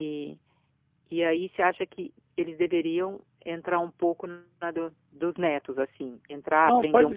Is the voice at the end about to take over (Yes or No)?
Yes